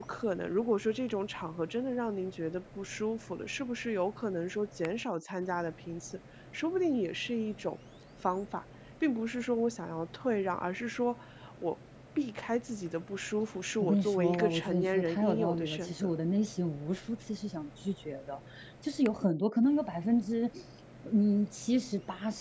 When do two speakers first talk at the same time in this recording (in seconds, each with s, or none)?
13.8 s